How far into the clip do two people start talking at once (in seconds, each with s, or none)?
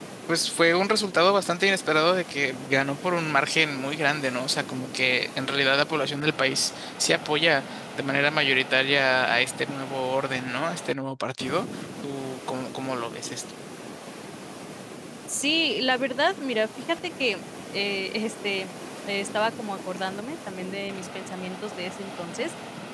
none